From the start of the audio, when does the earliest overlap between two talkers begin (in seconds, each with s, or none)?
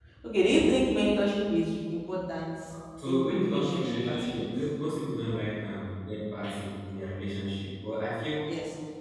3.0 s